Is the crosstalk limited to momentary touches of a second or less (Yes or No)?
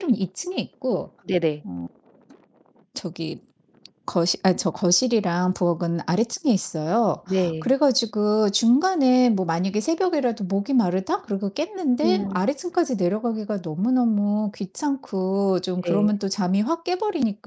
Yes